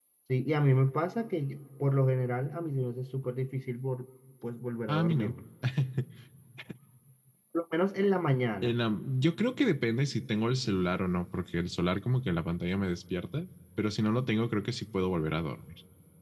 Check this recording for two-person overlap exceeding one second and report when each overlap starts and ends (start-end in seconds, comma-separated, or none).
none